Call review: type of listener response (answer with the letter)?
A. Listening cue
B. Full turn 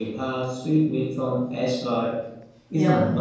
A